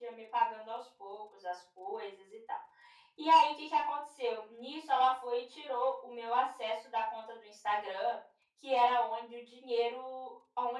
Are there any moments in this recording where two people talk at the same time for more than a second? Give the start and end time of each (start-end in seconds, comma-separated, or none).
none